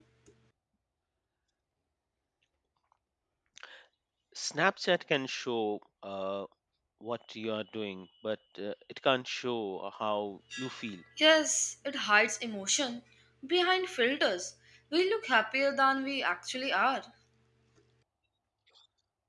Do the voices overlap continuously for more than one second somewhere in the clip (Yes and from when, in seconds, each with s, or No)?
No